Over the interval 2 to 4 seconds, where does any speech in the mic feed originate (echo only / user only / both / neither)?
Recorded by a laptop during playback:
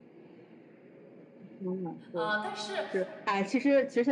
both